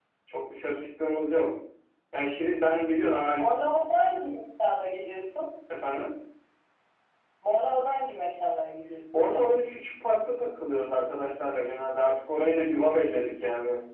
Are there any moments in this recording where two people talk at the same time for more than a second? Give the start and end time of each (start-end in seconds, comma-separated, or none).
none